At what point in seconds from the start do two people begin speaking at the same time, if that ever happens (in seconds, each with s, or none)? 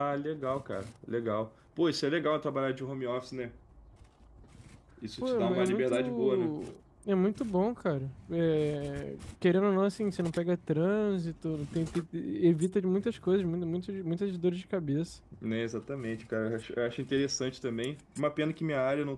5.2 s